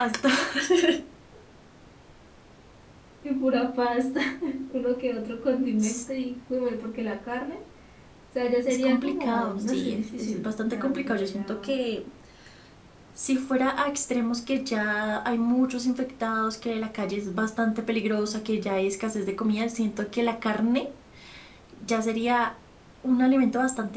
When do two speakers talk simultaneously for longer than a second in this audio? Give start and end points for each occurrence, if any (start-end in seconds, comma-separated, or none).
8.7-11.7